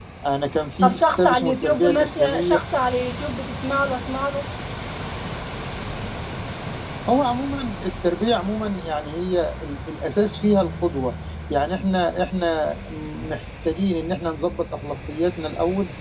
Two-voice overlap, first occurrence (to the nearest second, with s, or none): 1 s